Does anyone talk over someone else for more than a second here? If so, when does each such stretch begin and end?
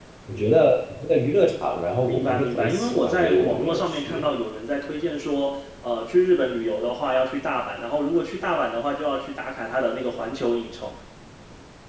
2.0-4.3

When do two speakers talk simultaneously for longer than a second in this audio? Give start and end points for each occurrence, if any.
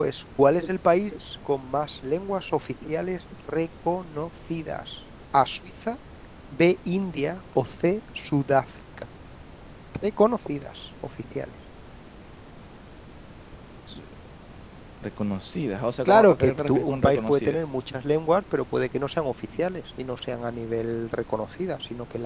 16.1-17.6

